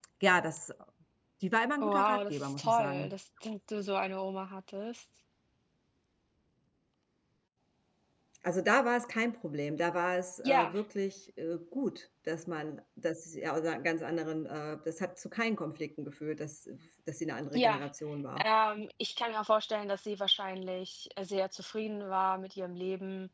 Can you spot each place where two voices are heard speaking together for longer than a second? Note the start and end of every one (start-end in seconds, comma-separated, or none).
1.8-3.1